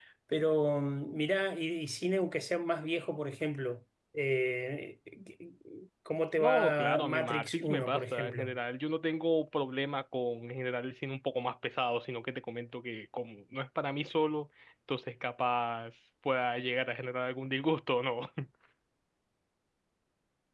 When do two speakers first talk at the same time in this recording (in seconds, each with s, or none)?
6.4 s